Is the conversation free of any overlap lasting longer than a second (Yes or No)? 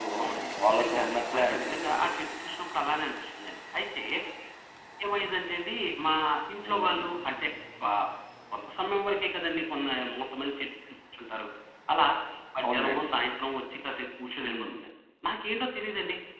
No